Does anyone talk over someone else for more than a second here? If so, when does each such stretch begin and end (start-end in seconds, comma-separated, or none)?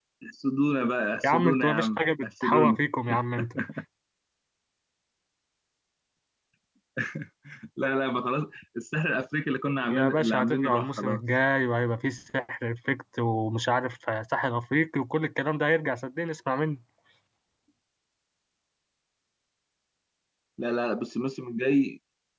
1.2-2.8, 9.9-11.2